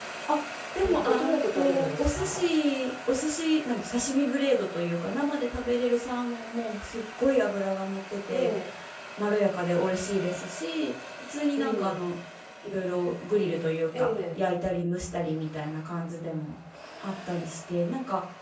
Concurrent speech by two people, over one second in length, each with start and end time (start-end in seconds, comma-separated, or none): 0.8-2.5